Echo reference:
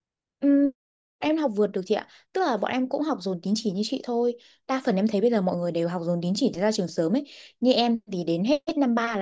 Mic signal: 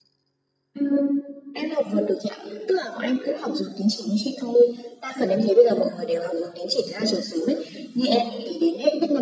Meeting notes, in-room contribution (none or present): present